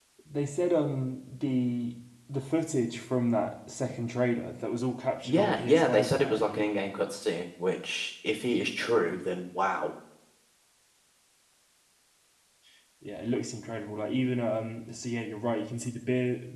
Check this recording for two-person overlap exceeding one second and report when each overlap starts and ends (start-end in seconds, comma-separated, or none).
5.2-6.6